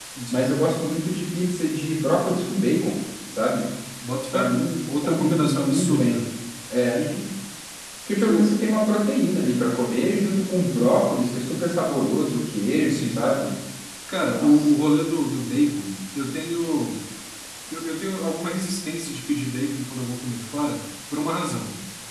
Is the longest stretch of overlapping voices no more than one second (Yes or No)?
No